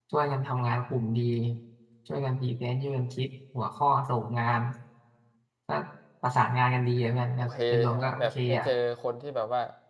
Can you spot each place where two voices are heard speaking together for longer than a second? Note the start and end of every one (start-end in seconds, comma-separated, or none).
7.4-8.6